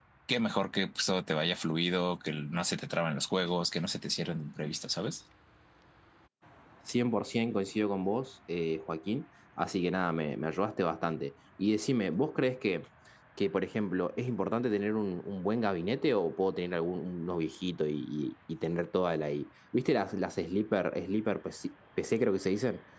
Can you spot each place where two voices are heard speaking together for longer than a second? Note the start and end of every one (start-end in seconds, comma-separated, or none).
none